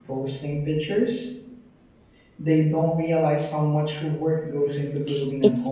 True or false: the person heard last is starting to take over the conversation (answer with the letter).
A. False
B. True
B